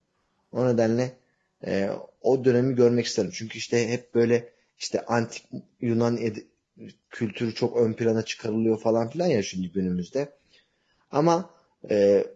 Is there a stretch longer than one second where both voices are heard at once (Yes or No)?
No